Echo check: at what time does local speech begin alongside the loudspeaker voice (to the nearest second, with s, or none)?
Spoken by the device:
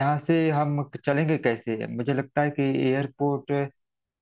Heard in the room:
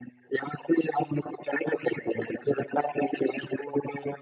none